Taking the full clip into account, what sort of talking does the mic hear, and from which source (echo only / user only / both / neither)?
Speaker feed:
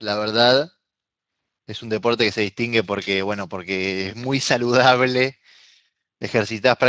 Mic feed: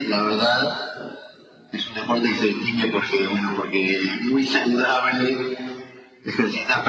echo only